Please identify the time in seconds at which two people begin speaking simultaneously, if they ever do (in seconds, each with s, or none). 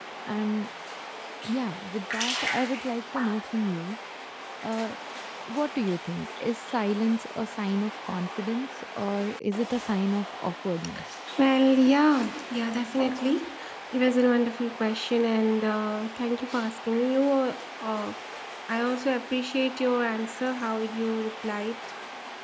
none